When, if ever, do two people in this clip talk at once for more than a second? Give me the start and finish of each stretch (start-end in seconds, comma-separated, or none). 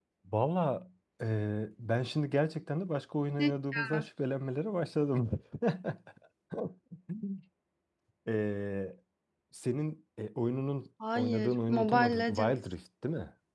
11.2-12.5